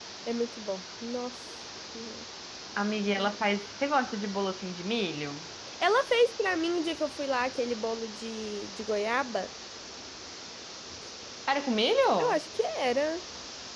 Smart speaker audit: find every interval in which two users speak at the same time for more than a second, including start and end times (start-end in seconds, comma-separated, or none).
none